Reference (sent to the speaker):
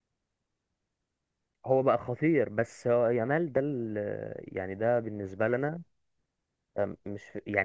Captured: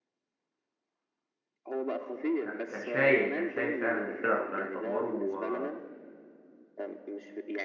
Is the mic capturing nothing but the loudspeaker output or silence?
No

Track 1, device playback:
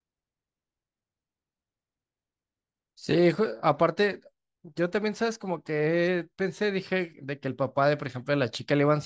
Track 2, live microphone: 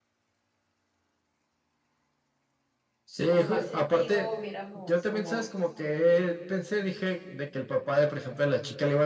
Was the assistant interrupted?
Yes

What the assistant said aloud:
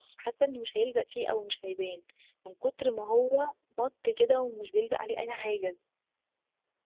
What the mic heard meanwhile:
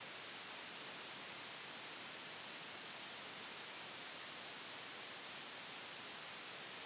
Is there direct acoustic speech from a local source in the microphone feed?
No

